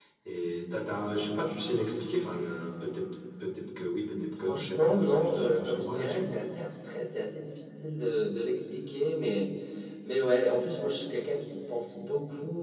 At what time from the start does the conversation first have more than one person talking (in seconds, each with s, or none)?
4.4 s